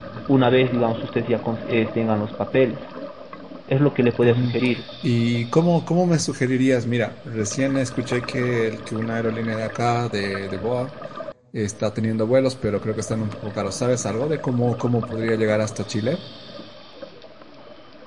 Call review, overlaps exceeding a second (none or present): none